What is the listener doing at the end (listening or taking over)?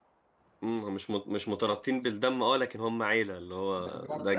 taking over